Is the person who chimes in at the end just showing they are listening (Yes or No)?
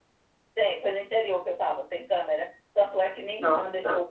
Yes